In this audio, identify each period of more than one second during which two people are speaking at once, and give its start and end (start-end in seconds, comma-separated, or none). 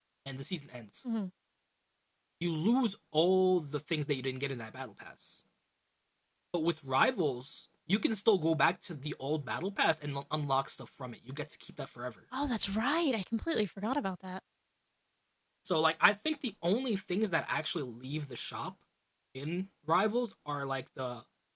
none